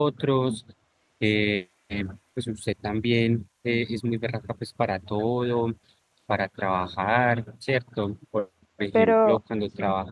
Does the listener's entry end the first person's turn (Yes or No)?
No